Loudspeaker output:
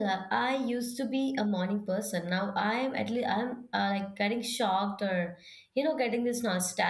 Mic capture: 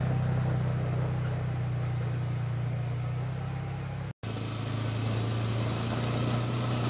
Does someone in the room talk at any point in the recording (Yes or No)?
No